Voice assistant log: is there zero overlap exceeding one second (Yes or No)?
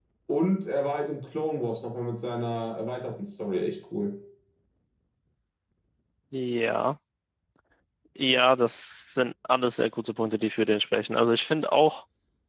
Yes